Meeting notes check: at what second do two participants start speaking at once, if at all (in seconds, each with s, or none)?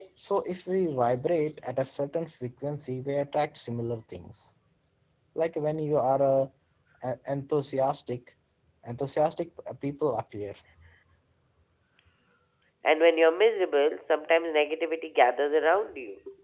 none